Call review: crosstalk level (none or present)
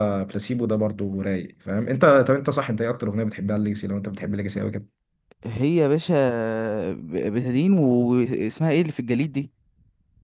none